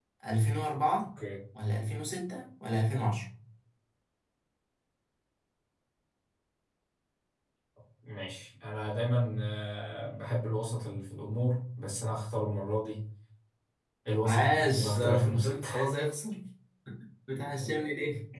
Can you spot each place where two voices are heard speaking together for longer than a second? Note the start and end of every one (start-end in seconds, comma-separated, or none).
14.2-15.7